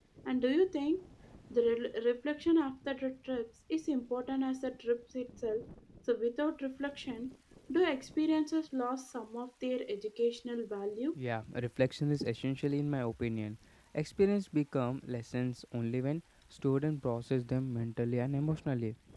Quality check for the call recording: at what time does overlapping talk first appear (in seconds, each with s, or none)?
none